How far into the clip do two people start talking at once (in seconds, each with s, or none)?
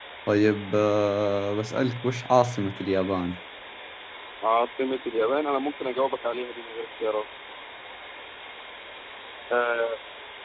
none